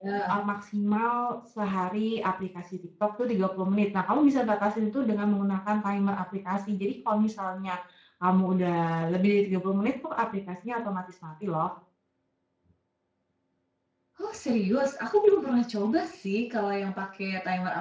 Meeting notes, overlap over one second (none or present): none